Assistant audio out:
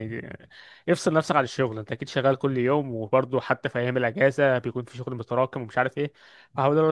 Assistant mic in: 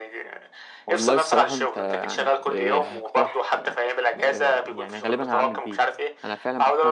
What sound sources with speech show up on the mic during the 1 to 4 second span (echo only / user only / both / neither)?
both